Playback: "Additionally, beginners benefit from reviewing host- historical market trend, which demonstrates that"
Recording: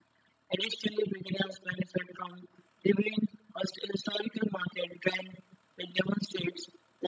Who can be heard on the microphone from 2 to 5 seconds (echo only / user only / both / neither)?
echo only